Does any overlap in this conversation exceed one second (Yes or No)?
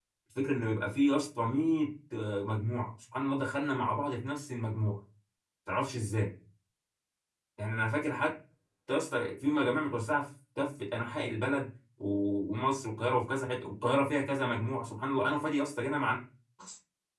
No